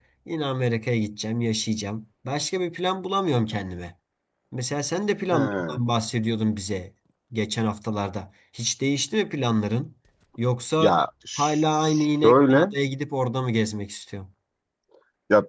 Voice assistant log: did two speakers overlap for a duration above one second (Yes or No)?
Yes